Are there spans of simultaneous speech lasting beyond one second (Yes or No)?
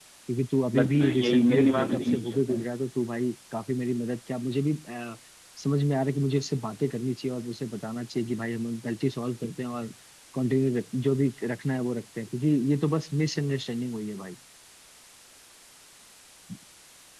Yes